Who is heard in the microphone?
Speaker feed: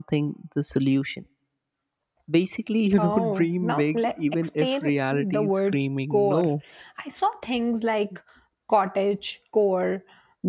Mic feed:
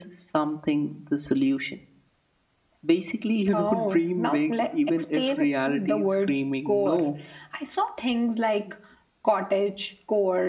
echo only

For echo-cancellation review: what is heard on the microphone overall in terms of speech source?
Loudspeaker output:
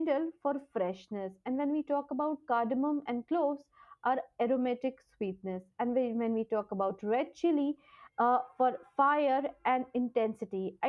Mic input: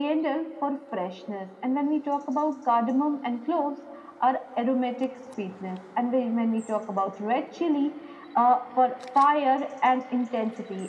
echo only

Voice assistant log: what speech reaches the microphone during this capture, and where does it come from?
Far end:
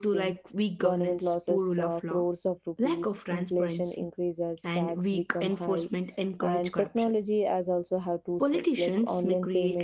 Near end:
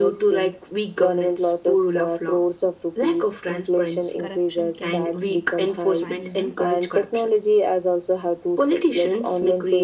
both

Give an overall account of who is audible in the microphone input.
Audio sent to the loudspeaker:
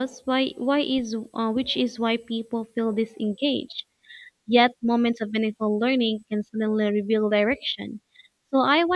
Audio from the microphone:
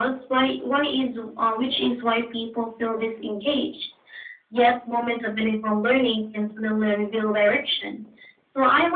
echo only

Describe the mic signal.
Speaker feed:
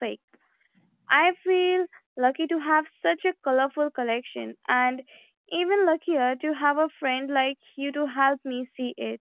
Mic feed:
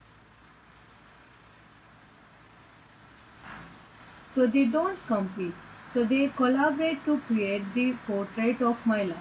user only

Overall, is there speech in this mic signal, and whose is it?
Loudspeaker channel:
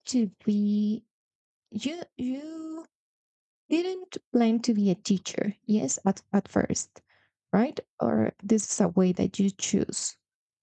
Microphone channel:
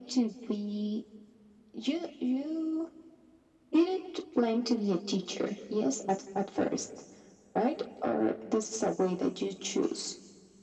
echo only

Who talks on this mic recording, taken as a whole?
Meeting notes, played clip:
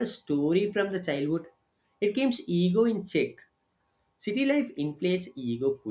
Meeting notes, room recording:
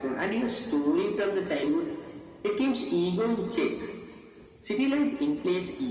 echo only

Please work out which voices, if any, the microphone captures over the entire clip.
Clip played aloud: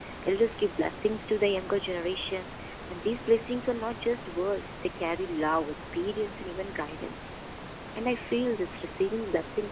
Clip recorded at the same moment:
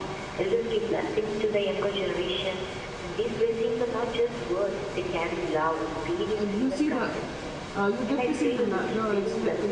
both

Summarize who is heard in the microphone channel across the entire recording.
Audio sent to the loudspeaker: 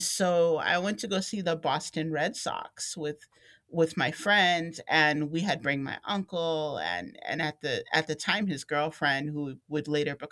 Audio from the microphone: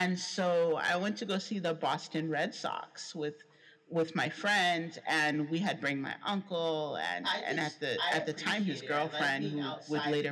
both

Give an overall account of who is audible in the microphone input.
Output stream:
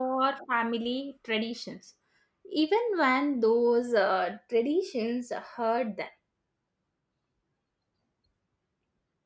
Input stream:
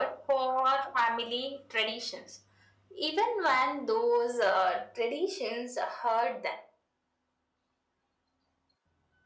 echo only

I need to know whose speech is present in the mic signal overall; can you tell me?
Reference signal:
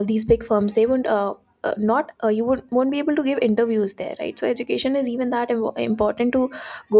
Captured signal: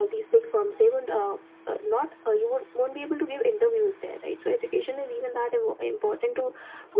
echo only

